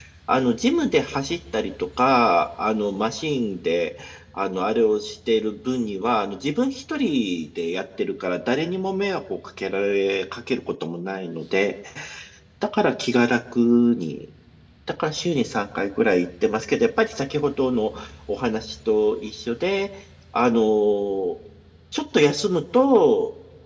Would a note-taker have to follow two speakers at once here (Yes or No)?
No